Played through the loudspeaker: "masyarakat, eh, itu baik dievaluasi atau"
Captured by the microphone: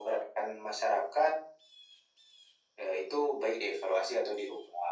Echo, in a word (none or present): present